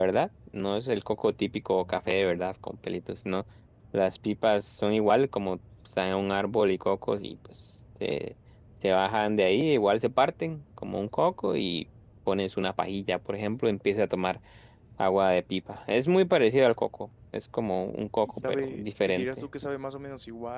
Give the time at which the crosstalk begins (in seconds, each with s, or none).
18.3 s